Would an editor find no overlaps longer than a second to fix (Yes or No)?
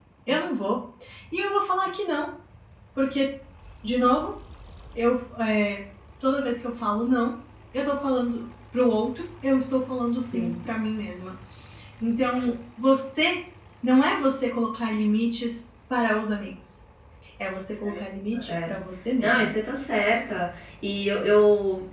Yes